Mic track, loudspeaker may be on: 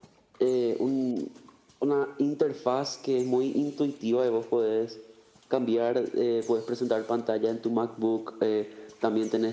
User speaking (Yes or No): No